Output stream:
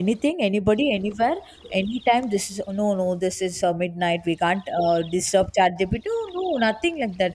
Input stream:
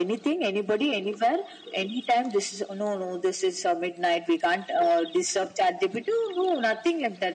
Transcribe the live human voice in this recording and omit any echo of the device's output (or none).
none